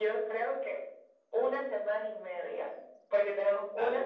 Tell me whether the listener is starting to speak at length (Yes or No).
No